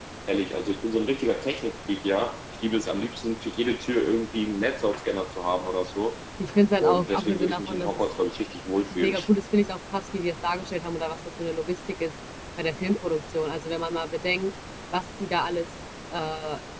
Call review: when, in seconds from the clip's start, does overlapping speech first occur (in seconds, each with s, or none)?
6.8 s